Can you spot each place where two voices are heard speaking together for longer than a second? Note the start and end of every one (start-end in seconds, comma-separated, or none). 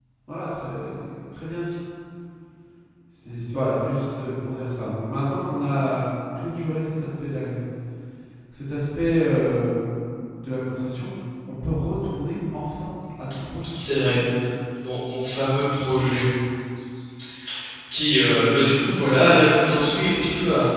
none